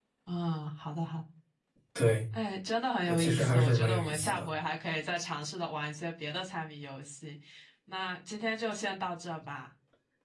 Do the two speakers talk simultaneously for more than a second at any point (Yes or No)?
Yes